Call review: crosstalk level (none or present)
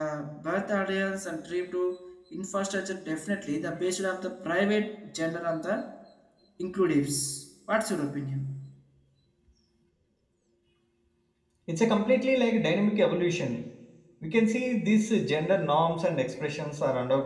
none